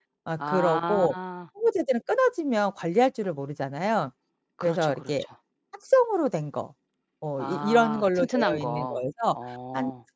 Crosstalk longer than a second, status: present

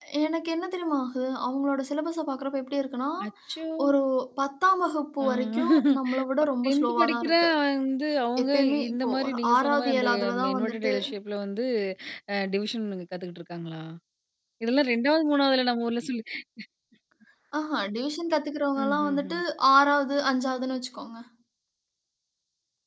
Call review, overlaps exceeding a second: present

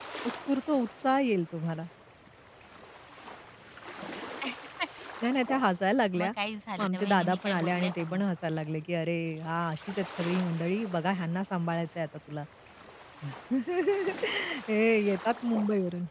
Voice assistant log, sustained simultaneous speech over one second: present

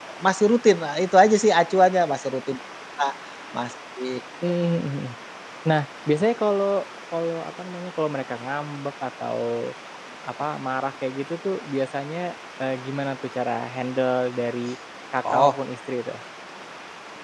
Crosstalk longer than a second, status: none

